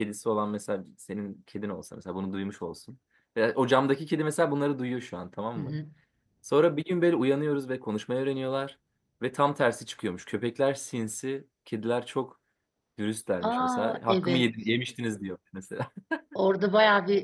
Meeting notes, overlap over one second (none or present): present